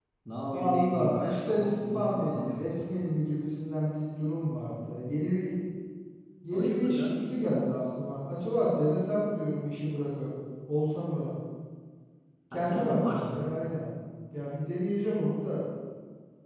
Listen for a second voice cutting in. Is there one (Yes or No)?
Yes